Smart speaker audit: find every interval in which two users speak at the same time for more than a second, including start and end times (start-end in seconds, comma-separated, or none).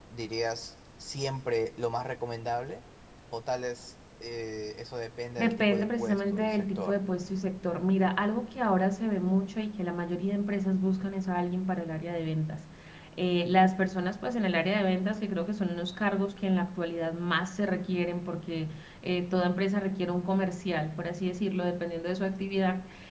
5.4-7.0